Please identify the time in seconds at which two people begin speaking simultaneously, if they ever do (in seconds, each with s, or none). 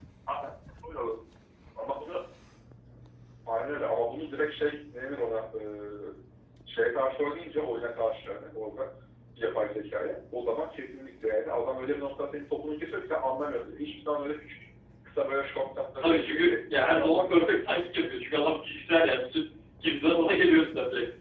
16.0 s